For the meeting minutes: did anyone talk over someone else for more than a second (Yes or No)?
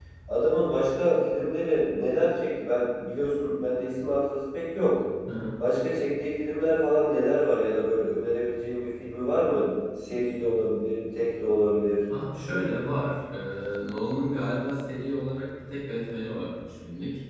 No